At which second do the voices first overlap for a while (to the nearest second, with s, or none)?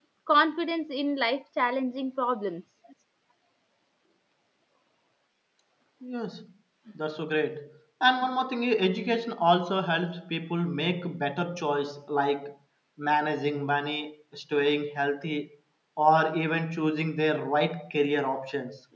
none